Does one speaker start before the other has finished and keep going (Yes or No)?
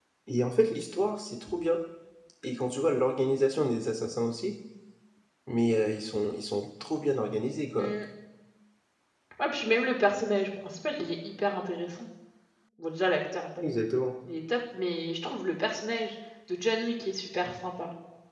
No